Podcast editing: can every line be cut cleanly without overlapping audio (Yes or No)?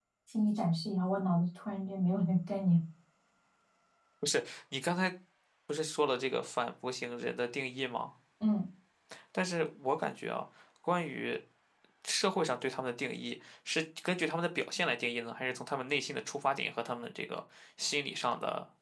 Yes